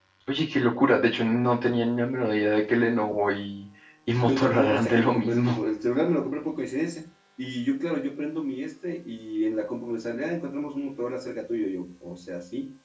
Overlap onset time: 4.2 s

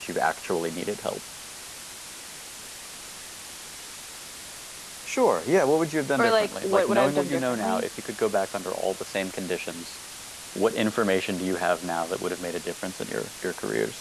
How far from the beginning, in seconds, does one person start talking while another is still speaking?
6.2 s

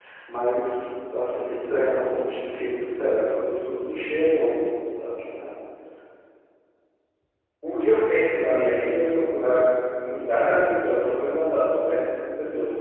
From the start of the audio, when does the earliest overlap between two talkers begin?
none

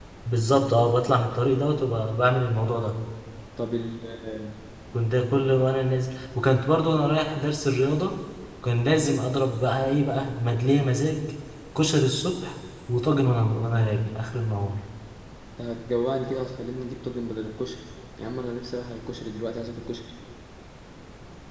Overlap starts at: none

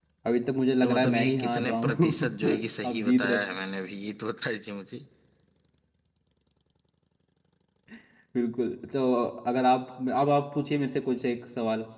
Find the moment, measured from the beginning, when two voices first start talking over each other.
0.8 s

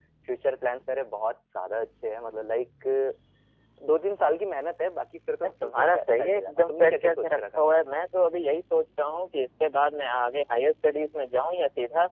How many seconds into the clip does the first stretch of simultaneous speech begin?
5.4 s

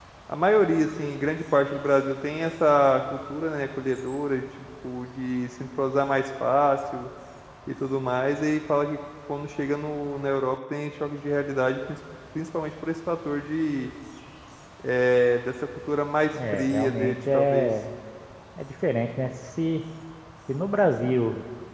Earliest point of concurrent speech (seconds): 16.3 s

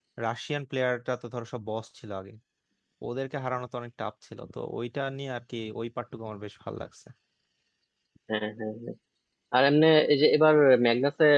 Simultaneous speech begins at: none

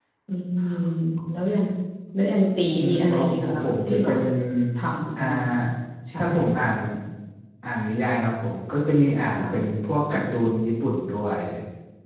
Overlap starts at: 2.8 s

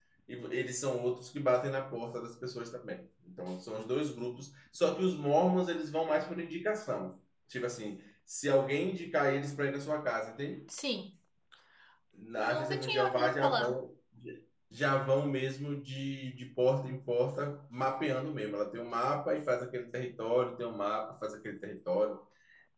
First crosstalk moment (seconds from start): 12.4 s

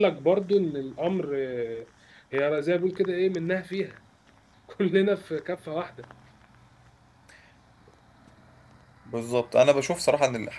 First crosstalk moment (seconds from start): none

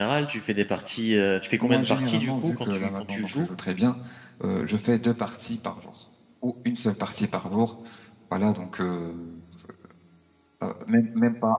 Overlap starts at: 1.6 s

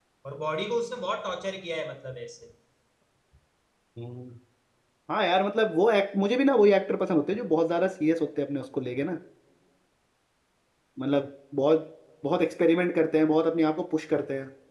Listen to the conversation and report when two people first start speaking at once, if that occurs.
none

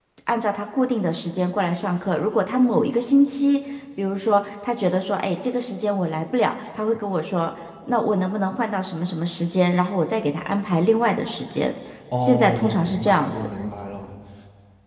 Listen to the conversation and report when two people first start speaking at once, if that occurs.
12.2 s

